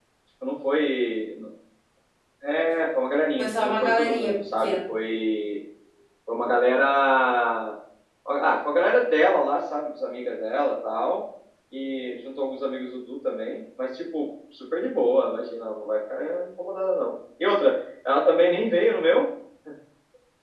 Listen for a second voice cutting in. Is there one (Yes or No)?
Yes